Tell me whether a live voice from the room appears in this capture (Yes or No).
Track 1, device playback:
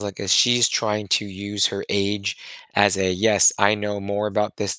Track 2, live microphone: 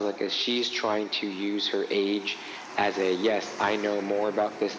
No